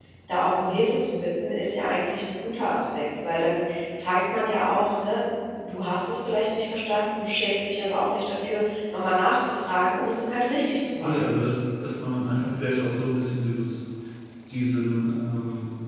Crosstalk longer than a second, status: none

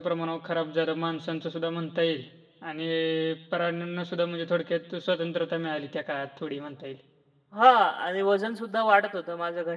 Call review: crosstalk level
none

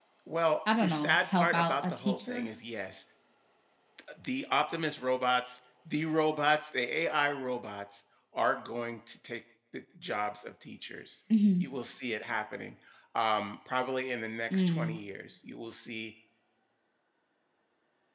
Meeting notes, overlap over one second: present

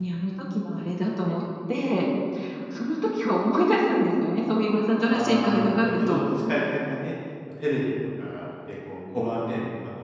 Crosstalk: present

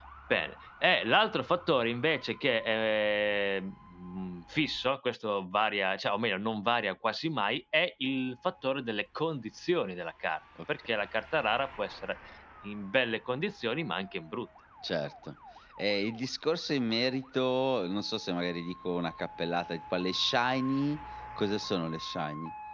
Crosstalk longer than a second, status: none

